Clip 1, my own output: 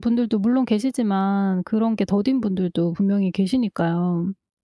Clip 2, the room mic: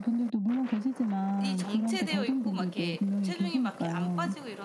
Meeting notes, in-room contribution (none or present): present